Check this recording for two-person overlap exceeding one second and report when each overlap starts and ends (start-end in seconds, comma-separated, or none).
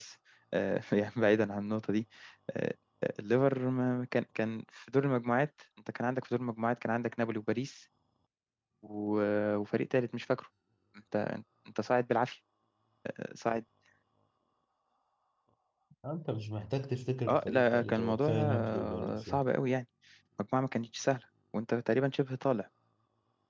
17.3-19.4